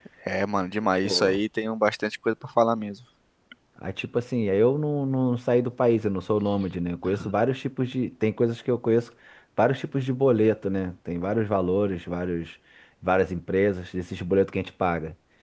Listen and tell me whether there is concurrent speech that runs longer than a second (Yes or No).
No